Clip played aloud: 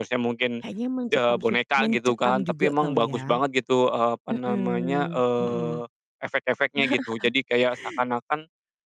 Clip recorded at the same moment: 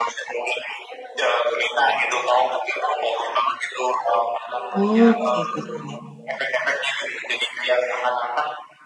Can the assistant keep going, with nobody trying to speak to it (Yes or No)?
No